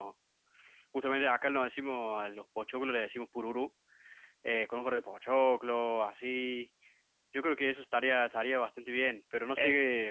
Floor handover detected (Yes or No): No